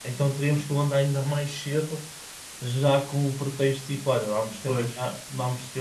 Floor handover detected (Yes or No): No